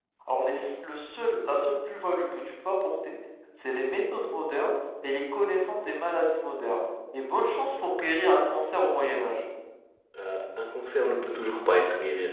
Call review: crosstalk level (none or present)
none